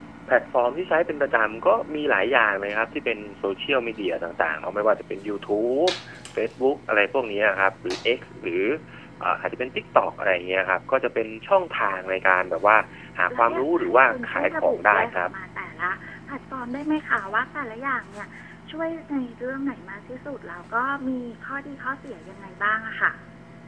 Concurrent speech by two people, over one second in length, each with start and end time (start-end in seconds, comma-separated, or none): 13.4-15.3